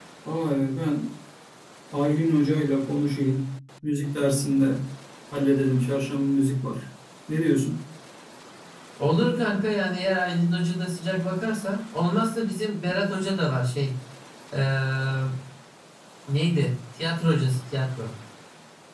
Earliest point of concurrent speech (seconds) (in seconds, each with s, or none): none